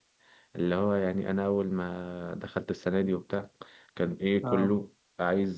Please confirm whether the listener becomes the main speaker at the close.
No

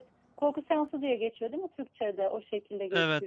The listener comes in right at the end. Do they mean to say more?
No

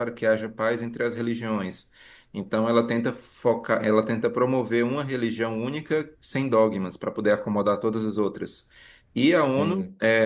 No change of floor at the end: Yes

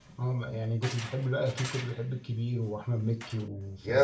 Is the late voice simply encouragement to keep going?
No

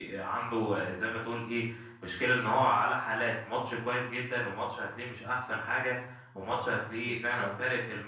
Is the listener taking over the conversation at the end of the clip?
No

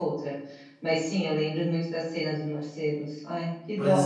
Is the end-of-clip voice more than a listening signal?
Yes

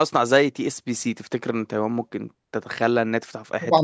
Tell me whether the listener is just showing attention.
No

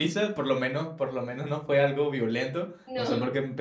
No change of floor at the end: Yes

